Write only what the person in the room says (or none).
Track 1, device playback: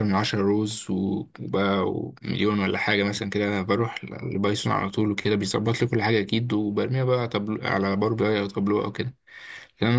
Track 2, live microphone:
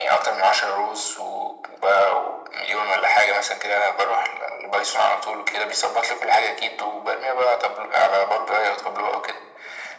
none